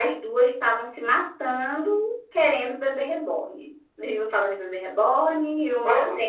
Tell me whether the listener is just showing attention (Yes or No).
Yes